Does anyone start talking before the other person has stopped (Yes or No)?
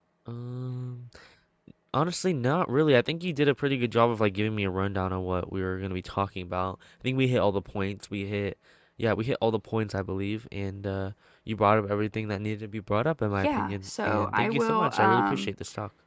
Yes